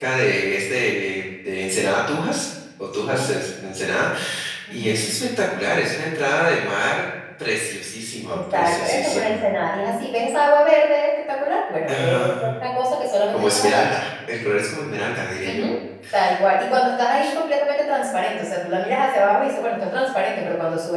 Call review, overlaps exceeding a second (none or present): present